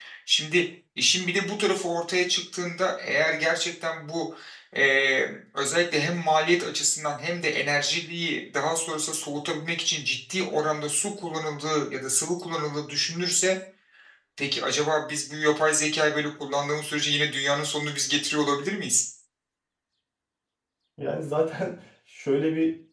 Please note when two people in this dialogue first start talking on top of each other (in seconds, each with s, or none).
none